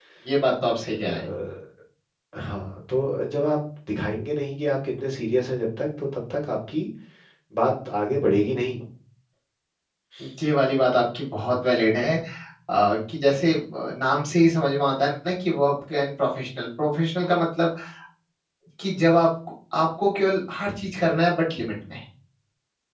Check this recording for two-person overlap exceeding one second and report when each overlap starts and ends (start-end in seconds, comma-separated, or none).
none